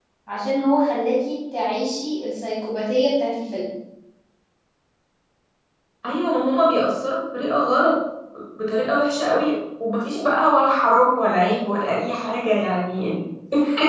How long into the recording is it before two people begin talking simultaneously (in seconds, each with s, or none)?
none